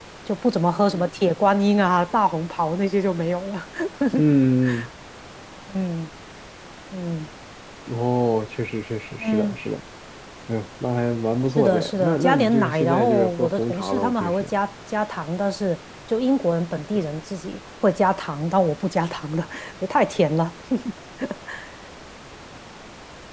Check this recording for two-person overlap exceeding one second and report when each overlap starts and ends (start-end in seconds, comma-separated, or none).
11.6-14.5